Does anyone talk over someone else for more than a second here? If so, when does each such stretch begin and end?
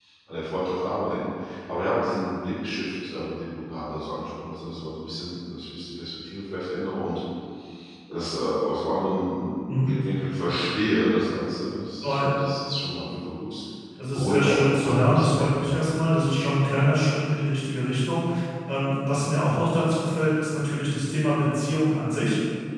14.1-15.8

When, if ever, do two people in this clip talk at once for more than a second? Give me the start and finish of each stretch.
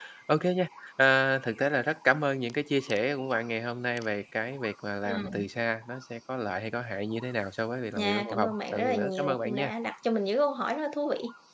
8.0-9.7

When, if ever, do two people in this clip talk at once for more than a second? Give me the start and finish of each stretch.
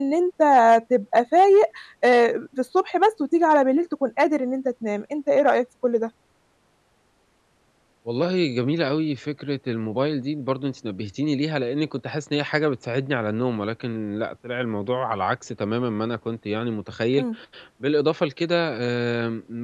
none

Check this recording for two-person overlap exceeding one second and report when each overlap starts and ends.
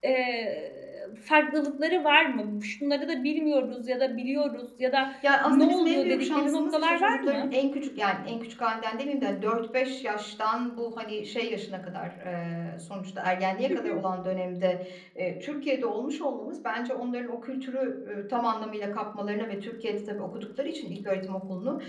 5.5-7.5

